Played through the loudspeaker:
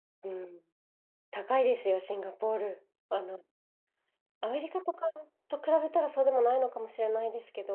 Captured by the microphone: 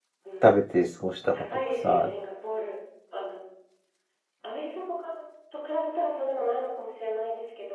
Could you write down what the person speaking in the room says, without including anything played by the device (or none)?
食べて過ごしたかとかさ、